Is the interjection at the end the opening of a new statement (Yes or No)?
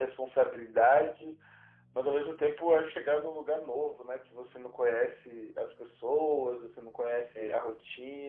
No